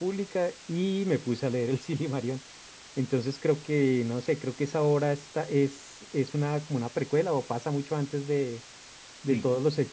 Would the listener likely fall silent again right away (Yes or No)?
Yes